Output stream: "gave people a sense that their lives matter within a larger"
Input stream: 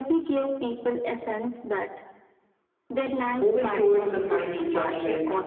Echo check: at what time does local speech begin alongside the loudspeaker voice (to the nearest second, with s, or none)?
3 s